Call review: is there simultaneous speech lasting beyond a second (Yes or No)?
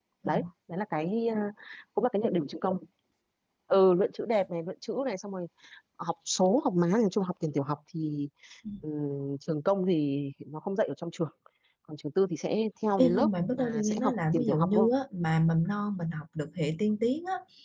Yes